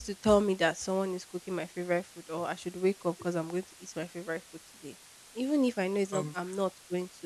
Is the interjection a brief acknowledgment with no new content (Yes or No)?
Yes